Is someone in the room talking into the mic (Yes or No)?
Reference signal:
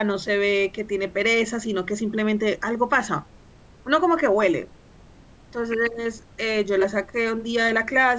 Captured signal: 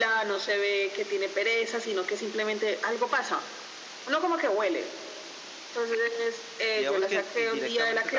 Yes